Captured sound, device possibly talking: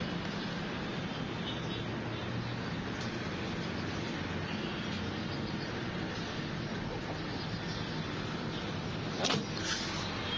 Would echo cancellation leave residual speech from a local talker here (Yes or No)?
No